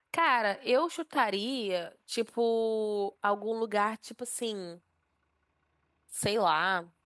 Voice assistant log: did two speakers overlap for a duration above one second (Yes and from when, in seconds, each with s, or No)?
No